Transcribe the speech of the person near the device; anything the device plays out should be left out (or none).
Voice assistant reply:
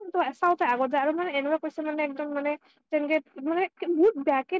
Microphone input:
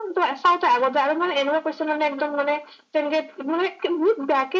none